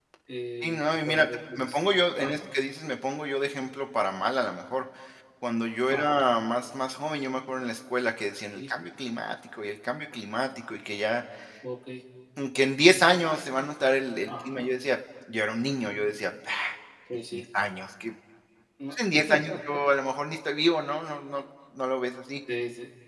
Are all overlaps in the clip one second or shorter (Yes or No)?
No